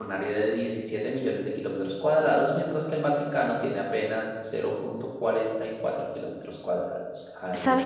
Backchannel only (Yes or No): No